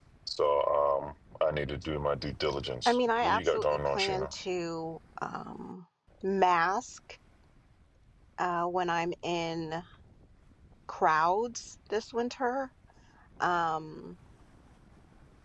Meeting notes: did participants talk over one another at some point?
Yes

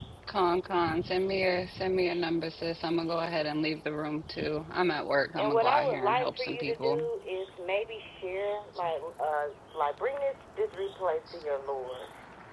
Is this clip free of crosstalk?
No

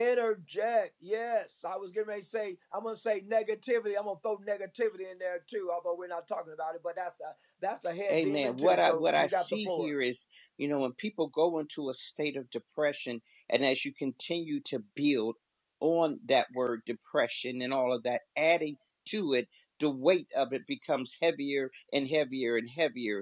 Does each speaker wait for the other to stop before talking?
No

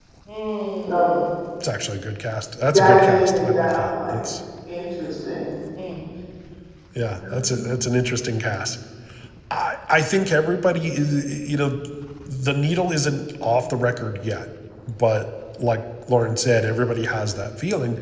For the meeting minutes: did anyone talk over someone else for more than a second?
Yes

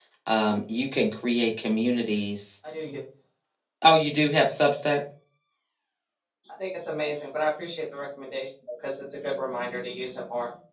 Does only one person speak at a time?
Yes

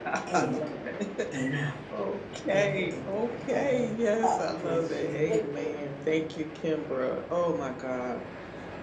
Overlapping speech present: Yes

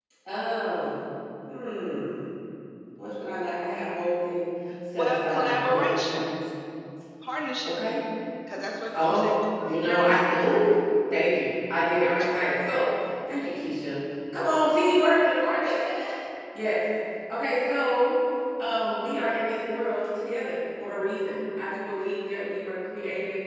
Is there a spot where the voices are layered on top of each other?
Yes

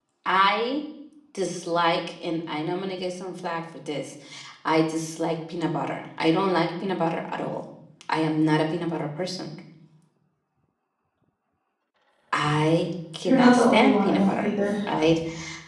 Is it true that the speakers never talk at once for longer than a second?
No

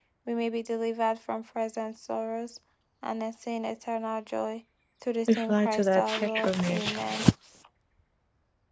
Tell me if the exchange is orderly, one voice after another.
No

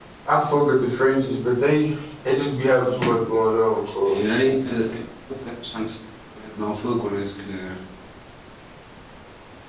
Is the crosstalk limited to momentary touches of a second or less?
Yes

